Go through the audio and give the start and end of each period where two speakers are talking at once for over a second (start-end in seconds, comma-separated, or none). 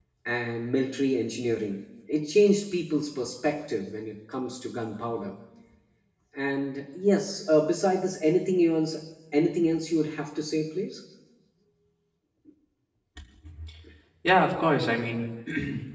none